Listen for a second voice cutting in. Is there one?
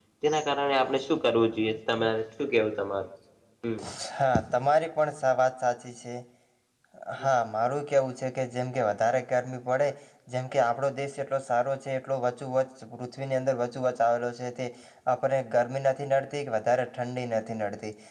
No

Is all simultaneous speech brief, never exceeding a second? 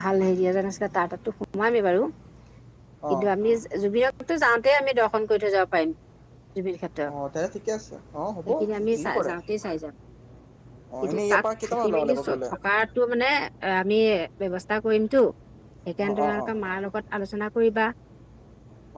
No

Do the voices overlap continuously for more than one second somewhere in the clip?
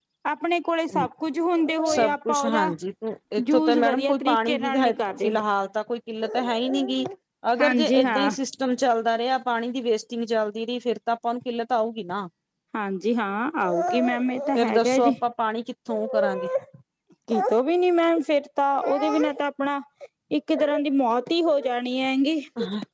Yes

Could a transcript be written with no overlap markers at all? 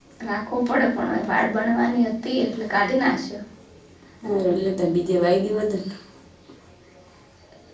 Yes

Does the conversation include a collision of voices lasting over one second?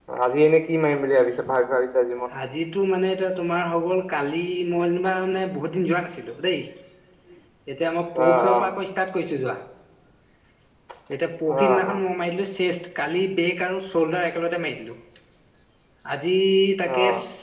No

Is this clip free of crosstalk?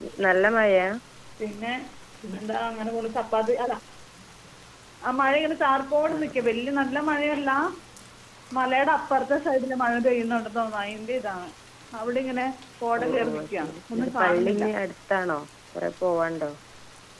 No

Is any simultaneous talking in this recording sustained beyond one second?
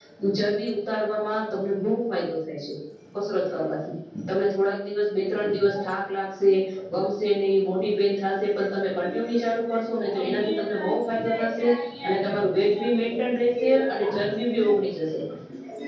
Yes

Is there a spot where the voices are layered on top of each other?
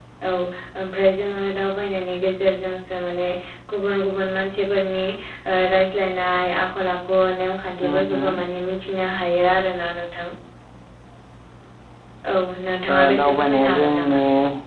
Yes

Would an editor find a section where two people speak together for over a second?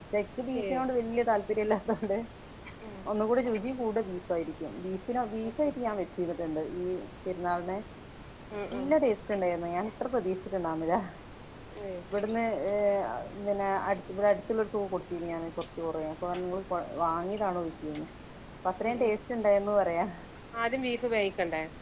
No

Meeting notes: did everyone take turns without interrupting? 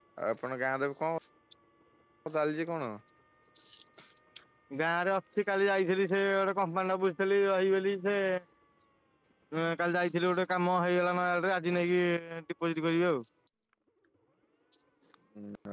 Yes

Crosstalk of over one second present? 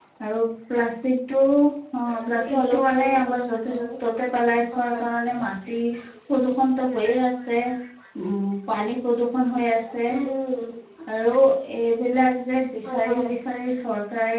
Yes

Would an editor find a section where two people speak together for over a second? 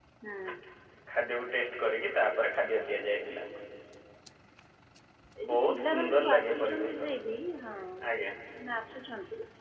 Yes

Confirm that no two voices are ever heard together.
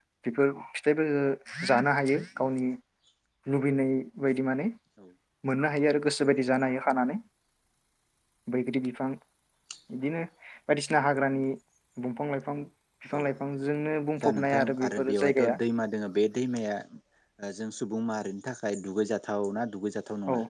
No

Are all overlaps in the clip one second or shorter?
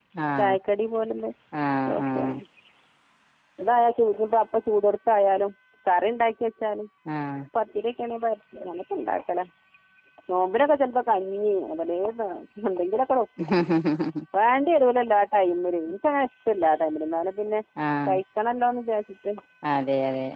Yes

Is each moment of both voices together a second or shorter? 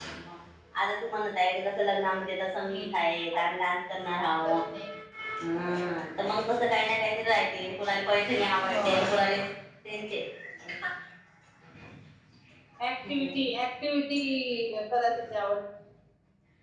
Yes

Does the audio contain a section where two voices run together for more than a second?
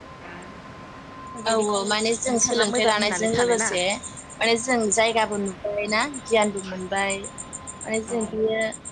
Yes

